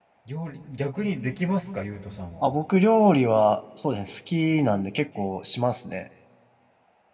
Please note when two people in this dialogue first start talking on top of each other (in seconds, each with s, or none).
none